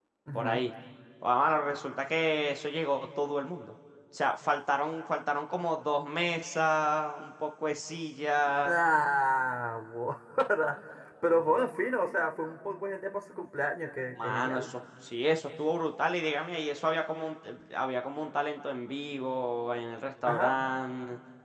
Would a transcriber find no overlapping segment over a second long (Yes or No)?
Yes